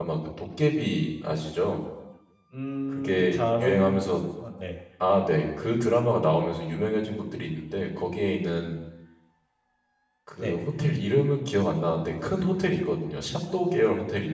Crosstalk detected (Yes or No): Yes